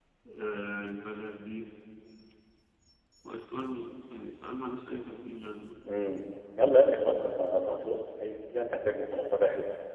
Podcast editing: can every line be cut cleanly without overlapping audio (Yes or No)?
Yes